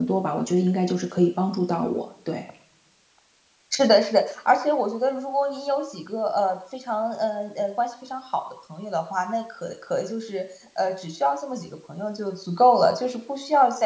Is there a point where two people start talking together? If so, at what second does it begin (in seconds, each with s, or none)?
none